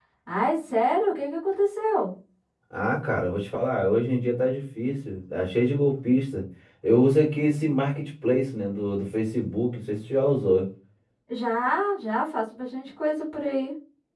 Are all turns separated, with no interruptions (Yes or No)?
Yes